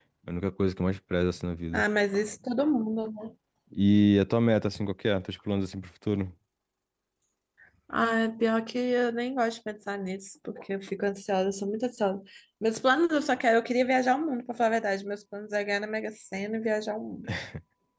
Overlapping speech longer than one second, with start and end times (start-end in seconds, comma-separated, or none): none